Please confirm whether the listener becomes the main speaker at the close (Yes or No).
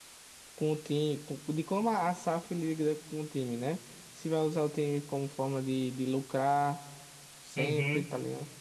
Yes